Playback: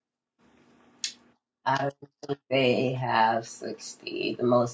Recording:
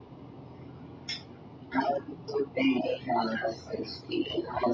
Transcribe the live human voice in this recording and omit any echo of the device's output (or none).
none